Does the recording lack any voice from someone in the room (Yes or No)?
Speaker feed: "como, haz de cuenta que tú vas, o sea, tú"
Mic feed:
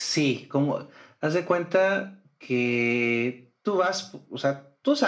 Yes